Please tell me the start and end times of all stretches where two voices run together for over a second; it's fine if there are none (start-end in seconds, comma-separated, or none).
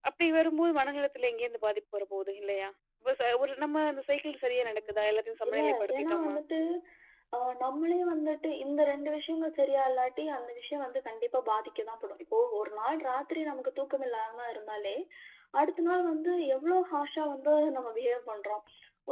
4.7-6.4